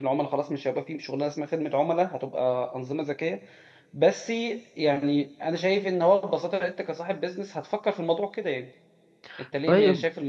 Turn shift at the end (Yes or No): No